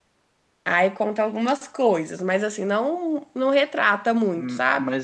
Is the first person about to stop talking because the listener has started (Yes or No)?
Yes